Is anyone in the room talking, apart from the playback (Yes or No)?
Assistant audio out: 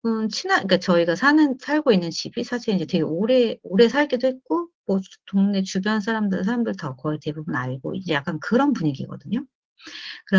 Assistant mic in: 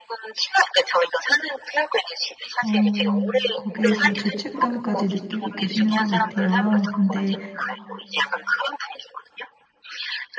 Yes